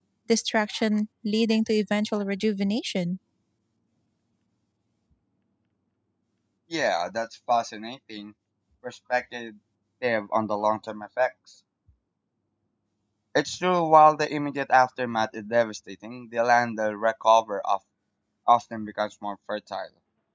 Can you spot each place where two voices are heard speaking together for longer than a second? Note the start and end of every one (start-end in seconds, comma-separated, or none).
none